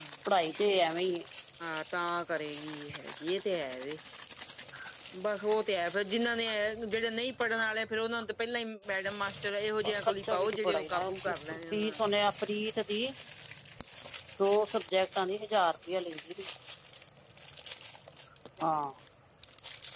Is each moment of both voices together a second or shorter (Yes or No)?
No